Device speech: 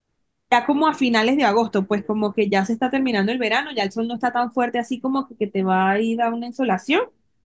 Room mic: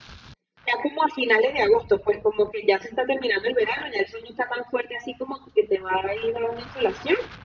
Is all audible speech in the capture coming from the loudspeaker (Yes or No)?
Yes